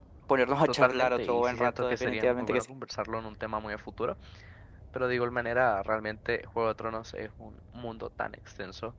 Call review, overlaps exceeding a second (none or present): present